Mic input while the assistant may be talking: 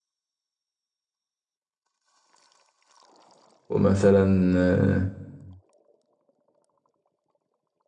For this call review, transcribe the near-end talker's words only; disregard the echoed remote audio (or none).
ومثلا آه،